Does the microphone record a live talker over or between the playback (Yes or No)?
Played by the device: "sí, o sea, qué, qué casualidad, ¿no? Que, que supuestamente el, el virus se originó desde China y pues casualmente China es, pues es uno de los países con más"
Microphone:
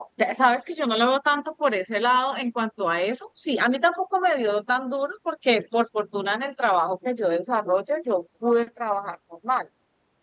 Yes